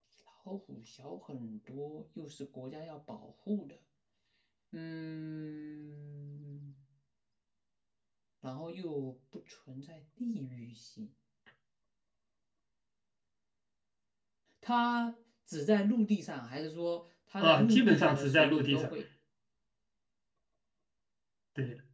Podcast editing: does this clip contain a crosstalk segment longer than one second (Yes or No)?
Yes